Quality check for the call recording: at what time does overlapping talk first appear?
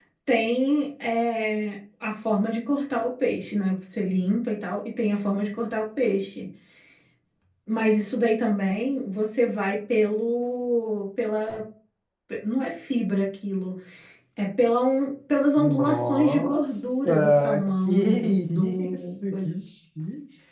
15.6 s

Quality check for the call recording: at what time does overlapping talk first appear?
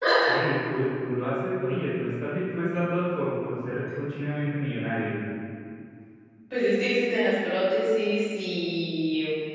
none

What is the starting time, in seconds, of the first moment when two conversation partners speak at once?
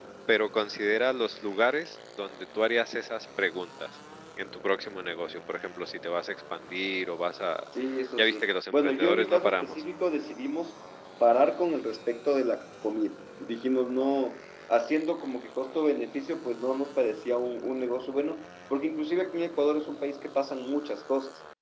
8.2 s

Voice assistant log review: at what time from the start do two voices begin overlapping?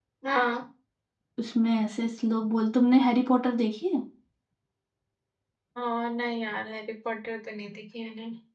none

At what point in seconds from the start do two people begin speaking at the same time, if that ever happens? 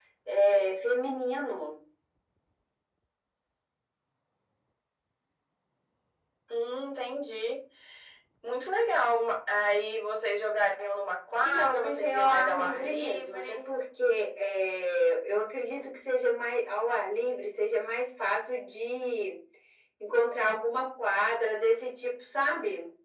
11.4 s

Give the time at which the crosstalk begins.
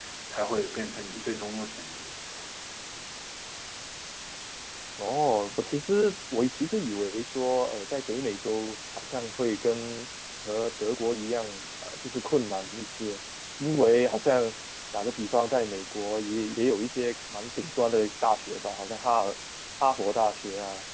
none

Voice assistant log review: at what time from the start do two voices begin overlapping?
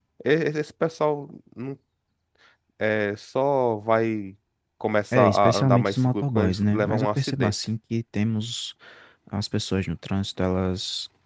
5.1 s

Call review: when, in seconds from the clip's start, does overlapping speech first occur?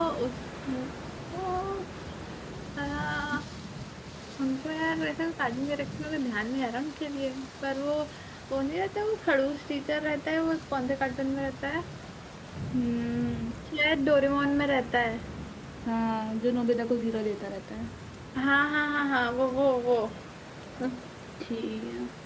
none

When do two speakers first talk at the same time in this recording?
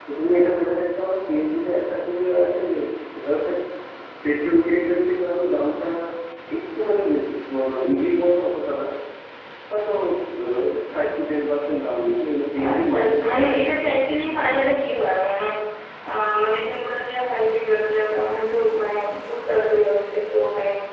12.6 s

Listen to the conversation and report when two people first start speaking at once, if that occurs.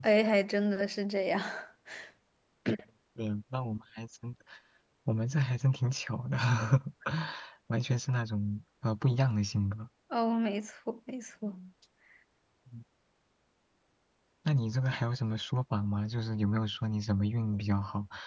none

